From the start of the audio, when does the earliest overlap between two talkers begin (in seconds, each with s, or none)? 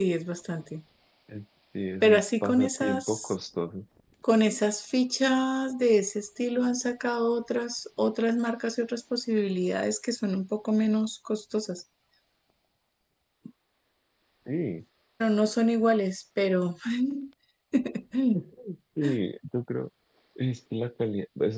2.0 s